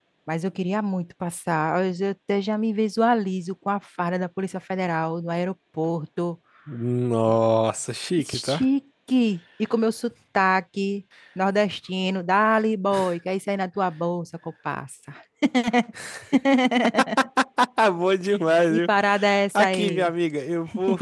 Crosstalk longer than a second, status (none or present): none